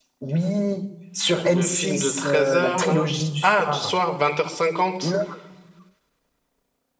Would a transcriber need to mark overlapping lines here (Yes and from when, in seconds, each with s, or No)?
Yes, from 1.4 s